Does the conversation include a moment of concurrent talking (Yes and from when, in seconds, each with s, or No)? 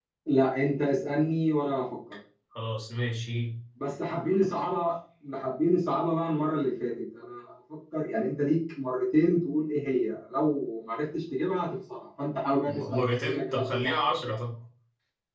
Yes, from 12.7 s